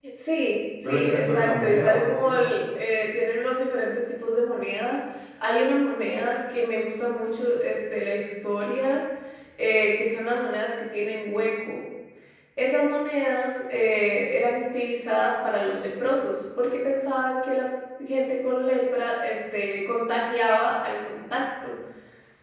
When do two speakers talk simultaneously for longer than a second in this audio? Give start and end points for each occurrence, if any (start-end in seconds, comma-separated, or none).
0.8-2.5